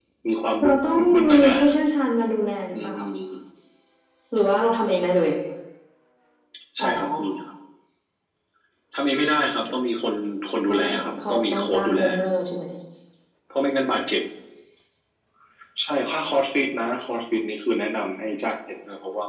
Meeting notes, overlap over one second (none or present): present